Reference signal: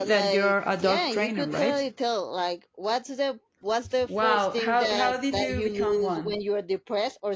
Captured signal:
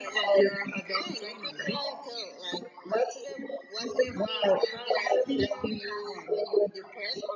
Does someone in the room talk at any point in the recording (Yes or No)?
No